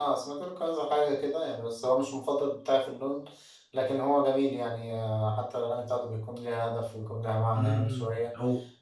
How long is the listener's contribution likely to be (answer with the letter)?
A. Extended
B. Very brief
A